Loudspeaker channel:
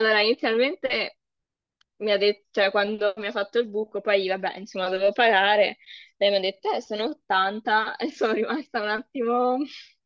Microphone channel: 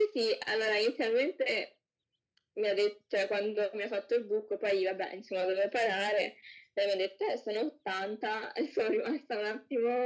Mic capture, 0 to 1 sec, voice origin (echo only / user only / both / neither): echo only